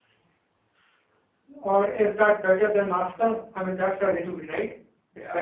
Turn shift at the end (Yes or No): Yes